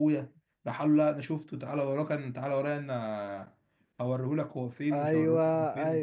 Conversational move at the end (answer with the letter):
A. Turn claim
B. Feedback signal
A